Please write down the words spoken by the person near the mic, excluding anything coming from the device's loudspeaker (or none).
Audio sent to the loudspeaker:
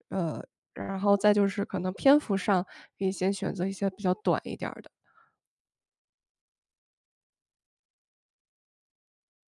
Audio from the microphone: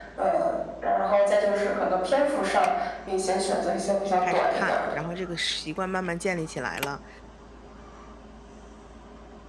开始看，然后这个是习惯慢慢建立起来了，